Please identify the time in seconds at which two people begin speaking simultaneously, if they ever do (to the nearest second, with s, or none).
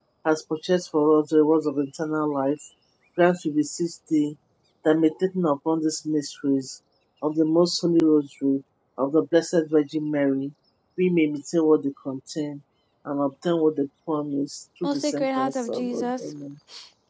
15 s